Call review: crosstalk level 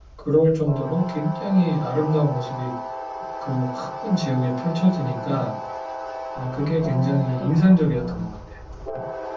present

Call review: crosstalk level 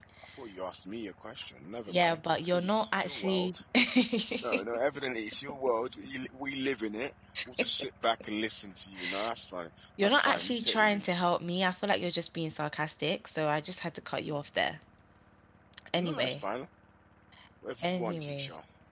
present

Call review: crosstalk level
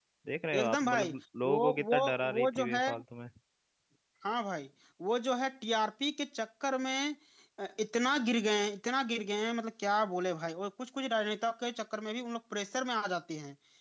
present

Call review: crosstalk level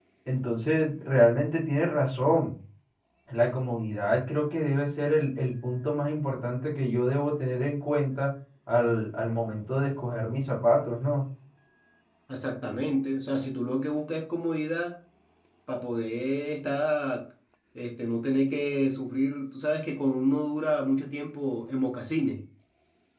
none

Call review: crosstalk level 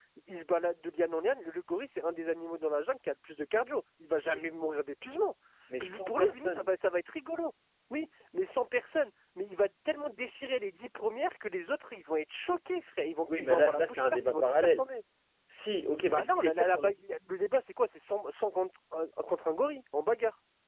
present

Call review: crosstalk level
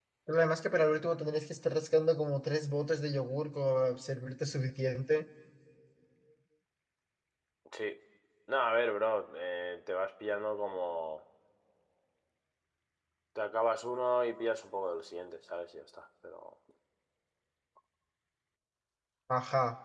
none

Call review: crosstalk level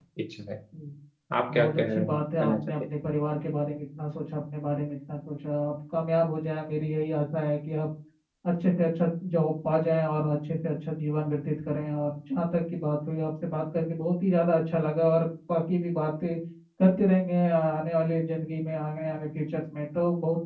present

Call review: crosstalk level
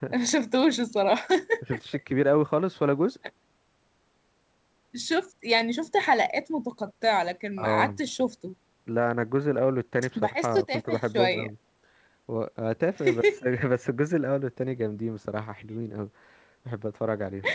present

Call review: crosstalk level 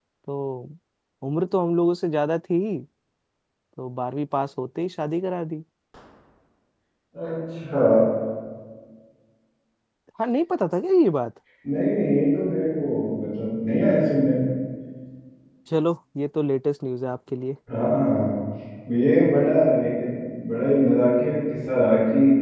none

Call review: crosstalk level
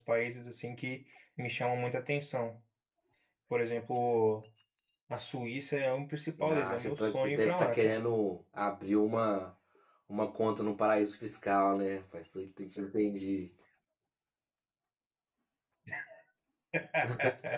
present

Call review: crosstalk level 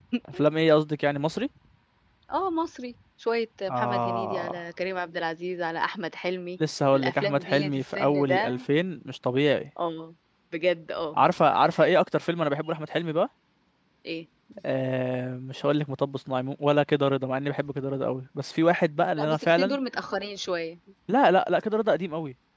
present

